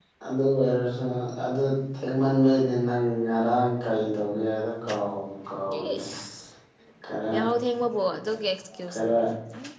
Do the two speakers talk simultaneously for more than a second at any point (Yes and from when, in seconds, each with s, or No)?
No